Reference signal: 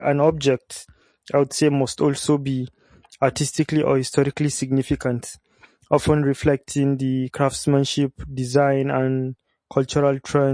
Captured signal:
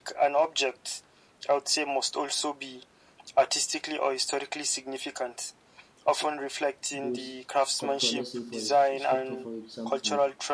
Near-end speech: present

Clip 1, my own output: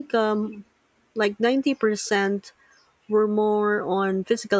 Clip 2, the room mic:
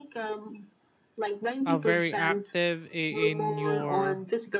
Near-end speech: present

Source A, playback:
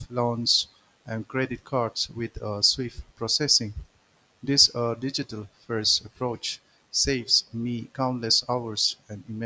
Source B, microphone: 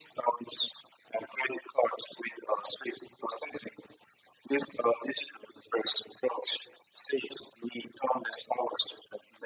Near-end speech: none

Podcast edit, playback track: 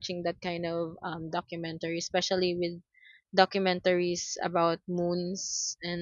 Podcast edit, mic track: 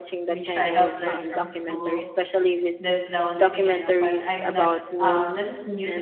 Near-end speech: present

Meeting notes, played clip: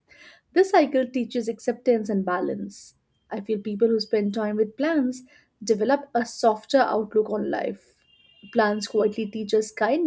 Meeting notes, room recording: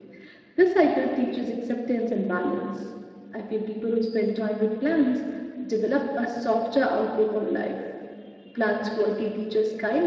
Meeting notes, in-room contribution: none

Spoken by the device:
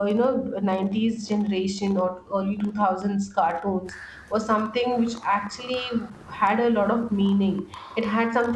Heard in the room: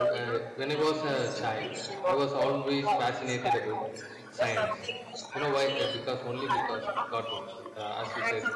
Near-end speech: present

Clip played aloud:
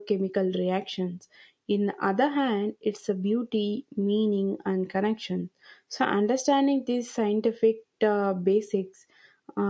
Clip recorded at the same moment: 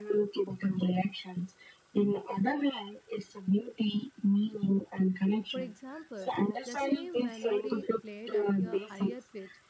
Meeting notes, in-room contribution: present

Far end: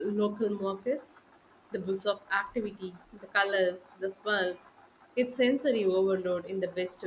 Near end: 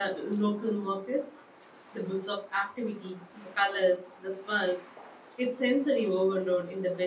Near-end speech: none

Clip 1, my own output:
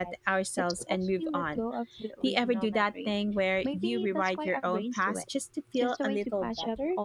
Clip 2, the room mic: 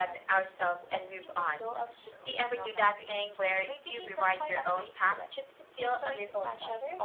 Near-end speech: none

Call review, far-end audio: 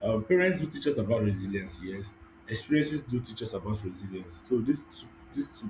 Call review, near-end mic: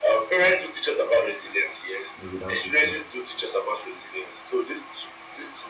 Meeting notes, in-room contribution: present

